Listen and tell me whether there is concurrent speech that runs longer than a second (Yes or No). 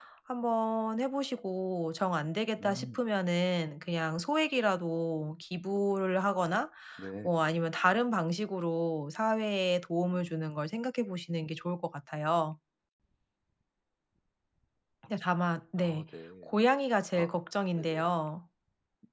No